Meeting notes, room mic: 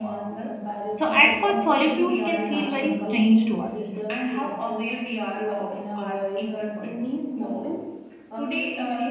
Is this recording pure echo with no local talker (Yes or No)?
No